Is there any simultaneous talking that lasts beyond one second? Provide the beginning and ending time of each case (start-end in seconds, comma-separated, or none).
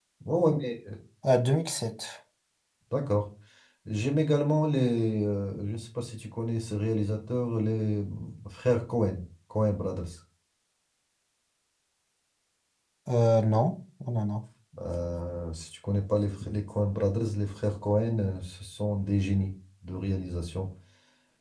none